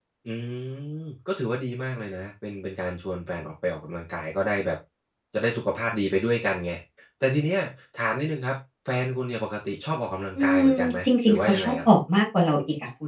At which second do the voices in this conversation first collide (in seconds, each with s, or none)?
10.4 s